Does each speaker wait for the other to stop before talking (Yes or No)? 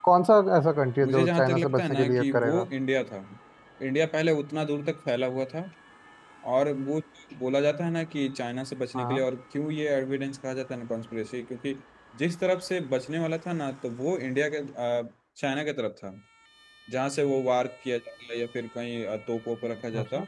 No